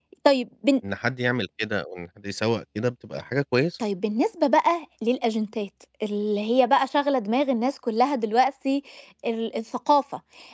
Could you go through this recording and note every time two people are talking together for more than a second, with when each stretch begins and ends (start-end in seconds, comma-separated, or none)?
none